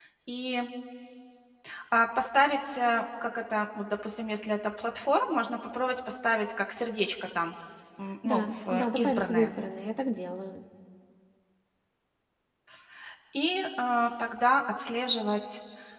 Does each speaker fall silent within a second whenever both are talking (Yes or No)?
No